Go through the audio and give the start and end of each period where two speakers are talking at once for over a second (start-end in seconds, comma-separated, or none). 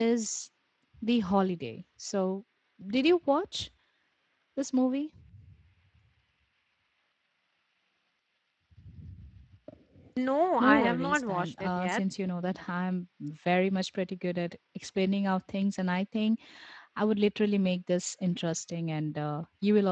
10.6-12.0